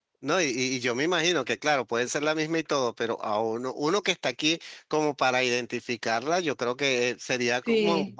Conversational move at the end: listening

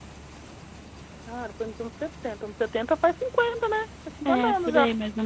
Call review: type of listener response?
taking over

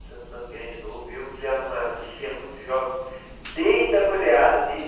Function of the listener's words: listening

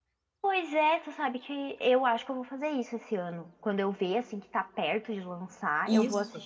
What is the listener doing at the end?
listening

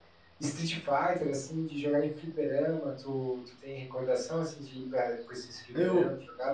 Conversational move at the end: taking over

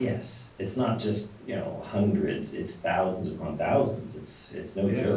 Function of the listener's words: listening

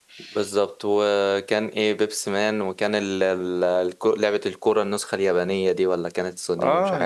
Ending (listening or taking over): taking over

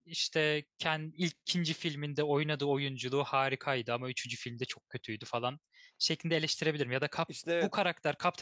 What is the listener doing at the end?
listening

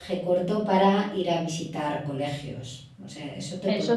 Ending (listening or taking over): taking over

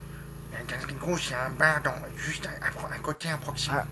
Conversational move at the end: taking over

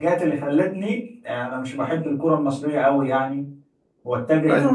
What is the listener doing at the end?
taking over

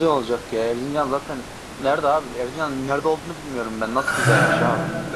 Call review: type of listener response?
taking over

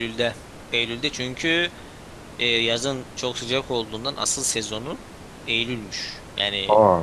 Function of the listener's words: listening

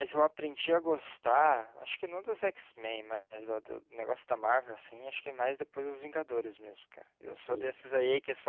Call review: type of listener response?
listening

